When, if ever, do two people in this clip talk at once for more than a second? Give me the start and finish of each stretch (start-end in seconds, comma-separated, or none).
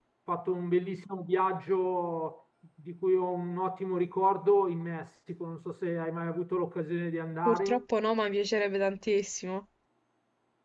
none